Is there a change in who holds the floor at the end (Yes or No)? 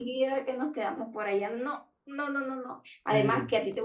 No